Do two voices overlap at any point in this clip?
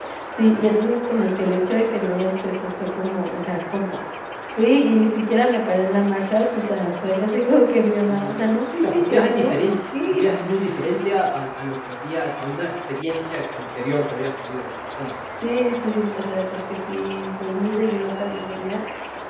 Yes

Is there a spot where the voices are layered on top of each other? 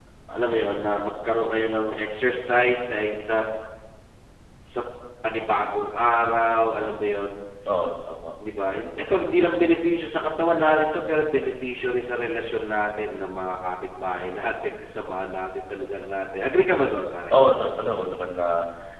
No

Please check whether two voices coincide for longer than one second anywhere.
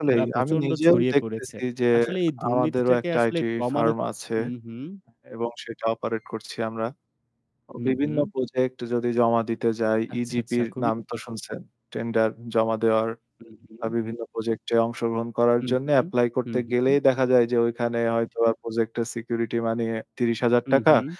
Yes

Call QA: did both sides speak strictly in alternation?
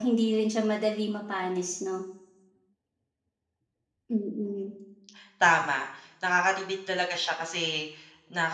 Yes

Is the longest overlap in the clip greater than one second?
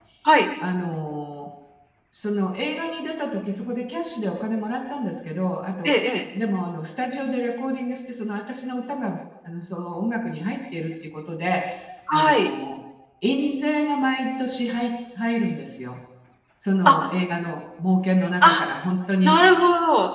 No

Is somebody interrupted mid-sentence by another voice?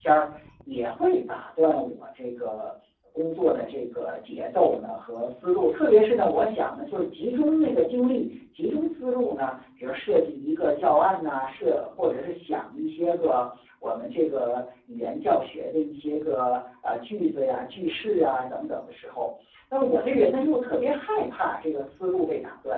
No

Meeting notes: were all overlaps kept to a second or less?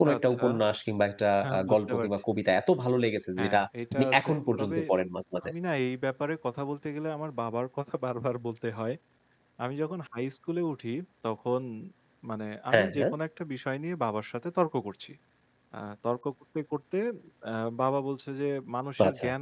No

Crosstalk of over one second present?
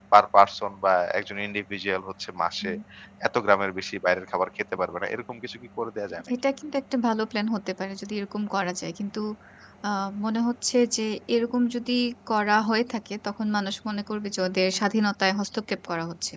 No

